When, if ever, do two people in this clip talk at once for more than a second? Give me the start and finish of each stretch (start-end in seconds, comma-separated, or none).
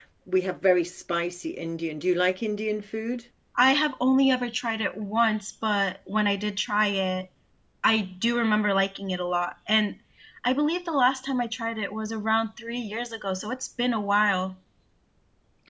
none